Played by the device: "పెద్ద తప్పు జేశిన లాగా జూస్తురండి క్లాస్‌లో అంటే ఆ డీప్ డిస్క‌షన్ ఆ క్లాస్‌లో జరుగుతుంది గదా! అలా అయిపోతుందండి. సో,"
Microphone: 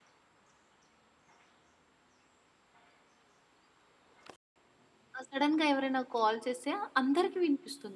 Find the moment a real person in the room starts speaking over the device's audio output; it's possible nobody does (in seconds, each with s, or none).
5.2 s